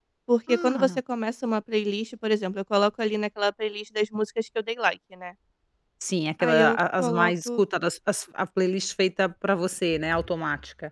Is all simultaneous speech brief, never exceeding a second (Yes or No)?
No